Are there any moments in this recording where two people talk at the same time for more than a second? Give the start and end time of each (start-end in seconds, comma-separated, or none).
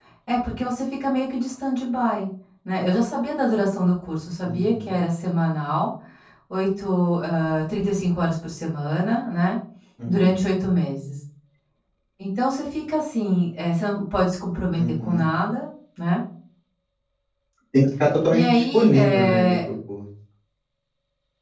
18.3-19.6